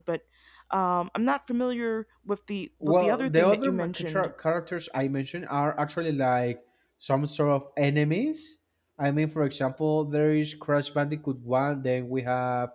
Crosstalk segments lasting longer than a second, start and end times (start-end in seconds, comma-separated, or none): 2.8-4.3